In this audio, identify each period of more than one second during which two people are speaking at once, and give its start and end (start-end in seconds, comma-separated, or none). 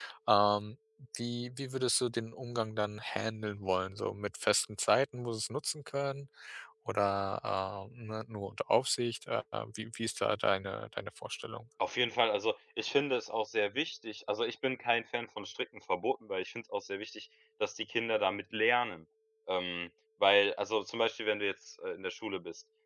none